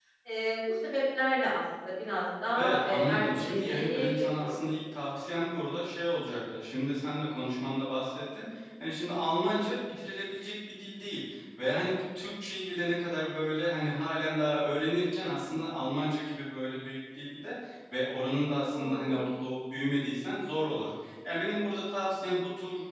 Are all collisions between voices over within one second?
No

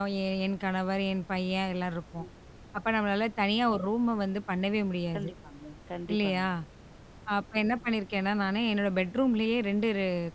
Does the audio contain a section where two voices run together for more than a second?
No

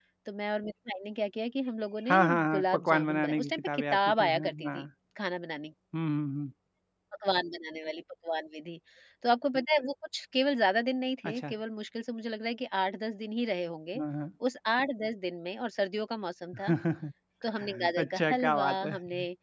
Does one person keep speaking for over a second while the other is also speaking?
Yes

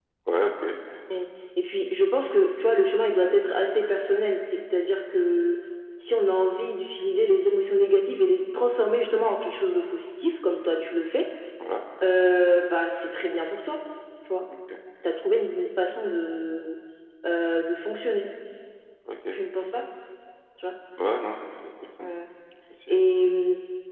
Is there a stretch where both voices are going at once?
No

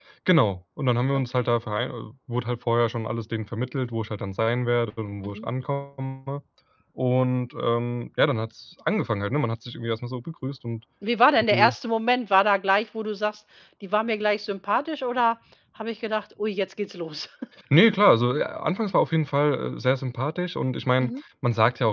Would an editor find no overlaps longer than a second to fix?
Yes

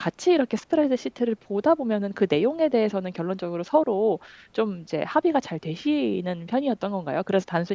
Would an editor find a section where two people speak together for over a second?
No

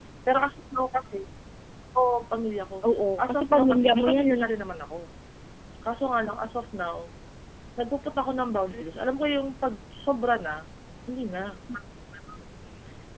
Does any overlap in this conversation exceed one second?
Yes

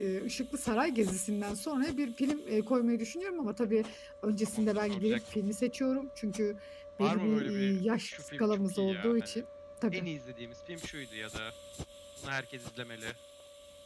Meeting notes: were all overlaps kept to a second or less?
No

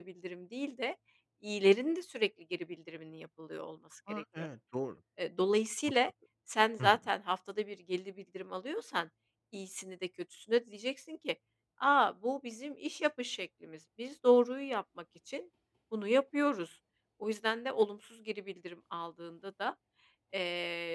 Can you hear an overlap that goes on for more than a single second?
No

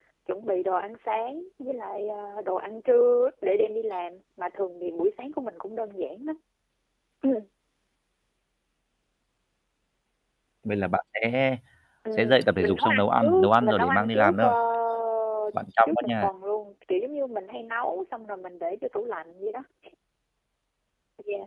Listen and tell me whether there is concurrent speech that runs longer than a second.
Yes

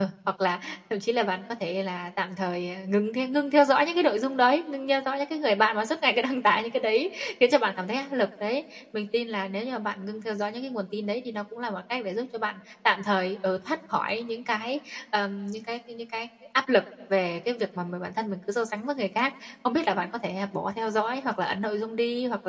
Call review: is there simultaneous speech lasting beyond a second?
No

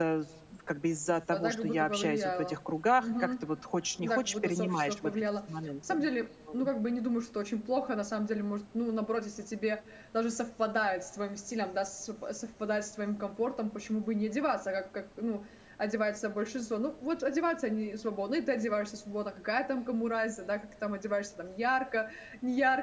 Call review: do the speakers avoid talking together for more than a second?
No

